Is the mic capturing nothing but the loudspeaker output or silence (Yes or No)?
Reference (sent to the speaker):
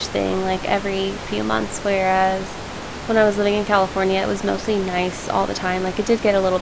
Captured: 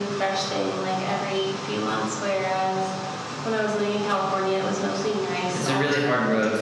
No